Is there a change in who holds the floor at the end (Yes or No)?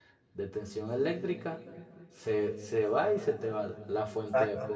No